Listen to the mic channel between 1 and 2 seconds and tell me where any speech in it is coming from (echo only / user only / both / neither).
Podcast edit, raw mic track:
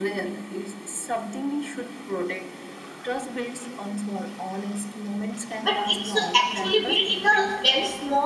echo only